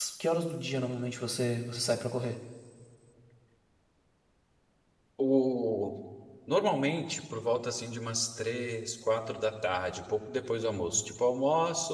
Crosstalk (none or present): none